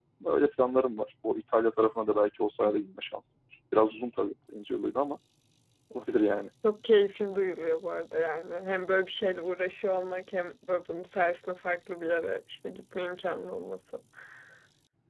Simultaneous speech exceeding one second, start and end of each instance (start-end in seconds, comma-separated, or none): none